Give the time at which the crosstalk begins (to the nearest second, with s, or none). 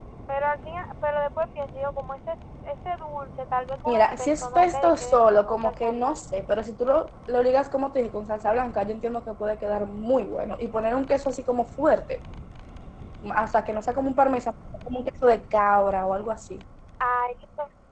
4 s